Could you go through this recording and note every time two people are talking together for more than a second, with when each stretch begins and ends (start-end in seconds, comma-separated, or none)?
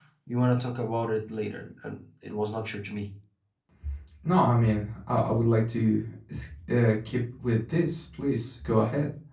none